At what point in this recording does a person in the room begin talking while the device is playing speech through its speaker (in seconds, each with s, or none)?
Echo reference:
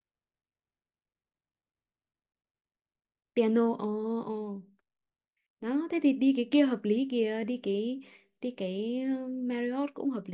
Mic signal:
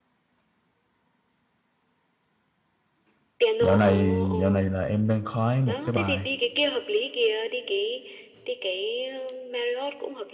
3.6 s